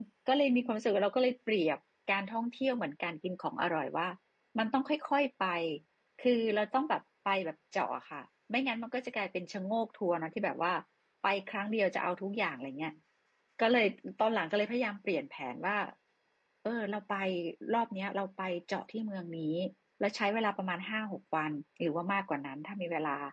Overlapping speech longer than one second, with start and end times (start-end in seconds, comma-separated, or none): none